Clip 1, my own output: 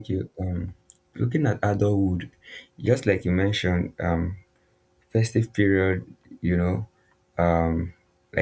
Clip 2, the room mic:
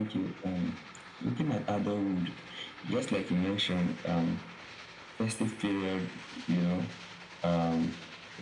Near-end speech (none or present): none